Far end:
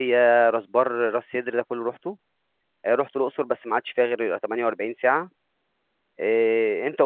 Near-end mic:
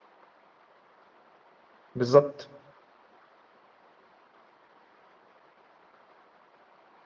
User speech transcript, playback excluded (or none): بالظبط